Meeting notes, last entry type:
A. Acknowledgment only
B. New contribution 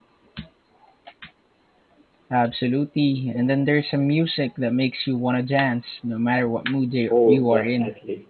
B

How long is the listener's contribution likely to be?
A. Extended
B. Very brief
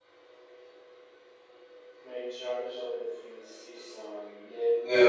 A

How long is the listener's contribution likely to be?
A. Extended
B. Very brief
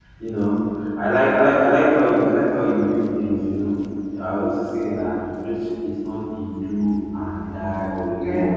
B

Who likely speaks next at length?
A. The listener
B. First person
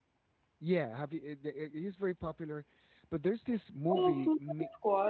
A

